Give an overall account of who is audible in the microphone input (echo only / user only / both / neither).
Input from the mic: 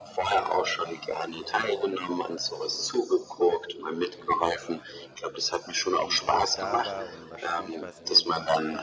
both